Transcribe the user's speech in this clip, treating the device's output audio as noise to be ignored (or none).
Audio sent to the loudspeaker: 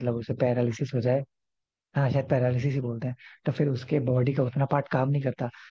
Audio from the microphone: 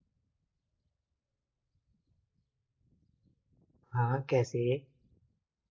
हाँ कैसे